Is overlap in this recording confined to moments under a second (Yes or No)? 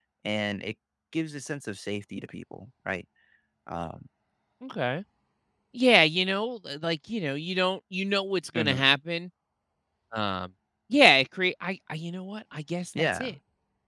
Yes